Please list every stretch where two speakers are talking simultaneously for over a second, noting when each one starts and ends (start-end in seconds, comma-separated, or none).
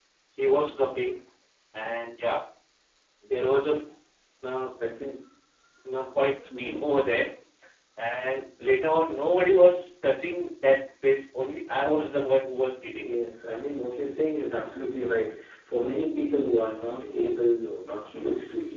none